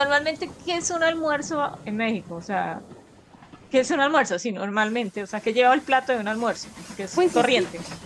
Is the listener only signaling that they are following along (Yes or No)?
No